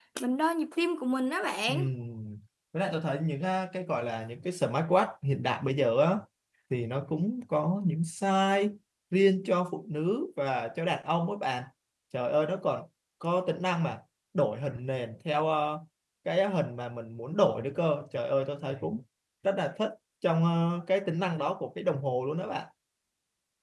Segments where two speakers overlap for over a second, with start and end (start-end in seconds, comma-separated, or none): none